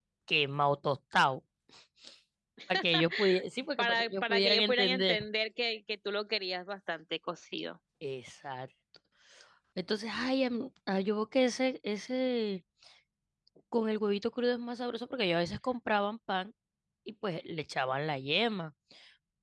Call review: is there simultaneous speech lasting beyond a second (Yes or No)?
Yes